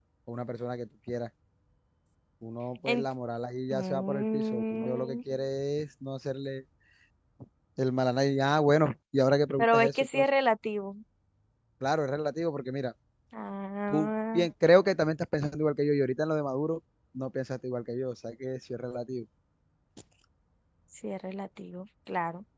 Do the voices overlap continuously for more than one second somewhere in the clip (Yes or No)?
Yes